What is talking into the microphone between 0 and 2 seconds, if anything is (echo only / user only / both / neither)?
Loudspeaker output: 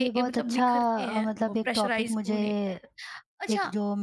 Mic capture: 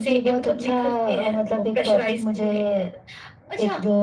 echo only